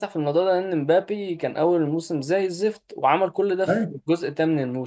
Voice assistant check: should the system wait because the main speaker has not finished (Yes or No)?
Yes